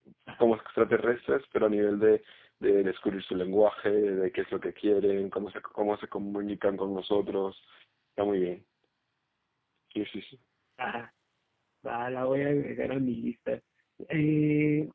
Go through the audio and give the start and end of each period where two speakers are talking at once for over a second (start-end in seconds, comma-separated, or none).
none